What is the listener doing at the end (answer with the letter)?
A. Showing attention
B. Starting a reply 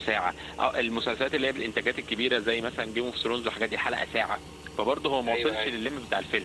A